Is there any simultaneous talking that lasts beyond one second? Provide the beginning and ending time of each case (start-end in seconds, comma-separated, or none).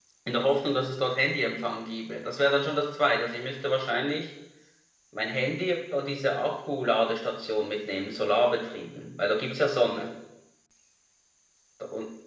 none